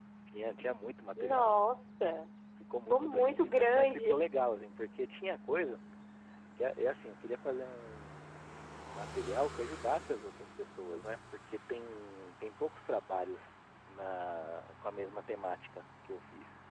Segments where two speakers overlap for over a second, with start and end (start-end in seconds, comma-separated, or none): 2.9-4.2